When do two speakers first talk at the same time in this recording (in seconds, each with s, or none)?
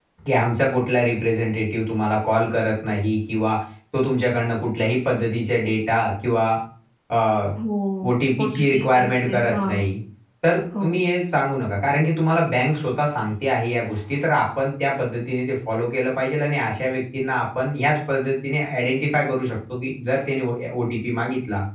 8.4 s